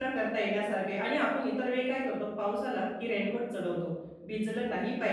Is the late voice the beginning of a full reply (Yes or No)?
No